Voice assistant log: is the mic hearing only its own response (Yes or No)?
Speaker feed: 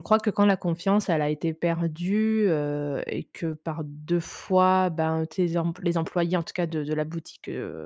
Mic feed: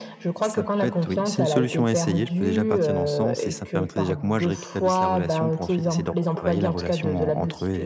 No